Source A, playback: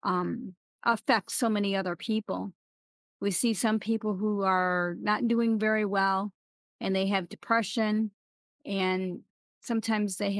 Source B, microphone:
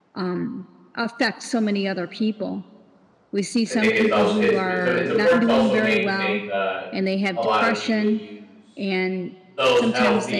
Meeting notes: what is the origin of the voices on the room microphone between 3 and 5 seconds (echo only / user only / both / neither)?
both